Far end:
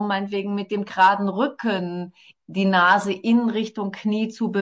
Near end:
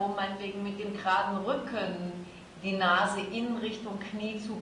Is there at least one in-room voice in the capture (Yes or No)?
No